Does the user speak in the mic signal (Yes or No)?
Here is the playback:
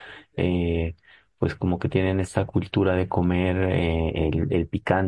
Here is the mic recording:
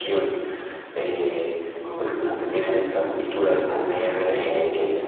Yes